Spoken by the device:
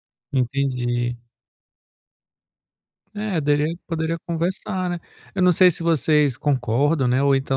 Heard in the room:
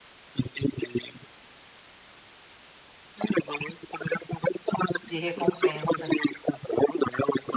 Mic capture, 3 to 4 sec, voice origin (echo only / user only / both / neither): echo only